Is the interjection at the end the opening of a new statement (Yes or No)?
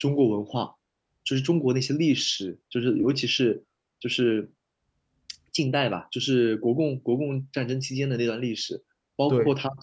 No